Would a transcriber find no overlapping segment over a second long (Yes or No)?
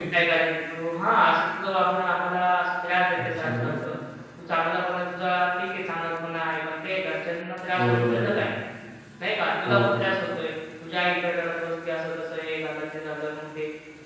Yes